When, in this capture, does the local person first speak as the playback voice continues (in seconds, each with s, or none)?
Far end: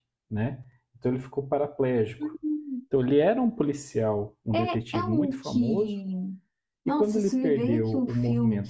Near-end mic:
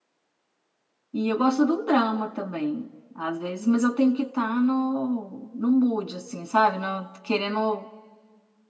1.1 s